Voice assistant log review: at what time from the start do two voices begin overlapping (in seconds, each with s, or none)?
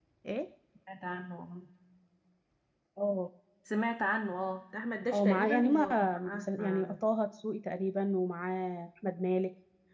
5.1 s